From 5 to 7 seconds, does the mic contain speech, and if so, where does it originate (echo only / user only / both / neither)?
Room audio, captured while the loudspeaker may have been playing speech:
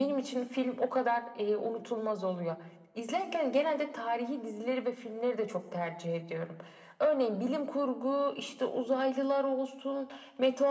echo only